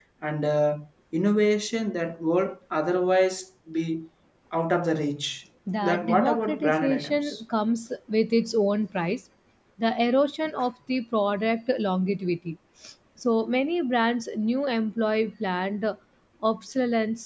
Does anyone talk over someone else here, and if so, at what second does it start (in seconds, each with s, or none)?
5.7 s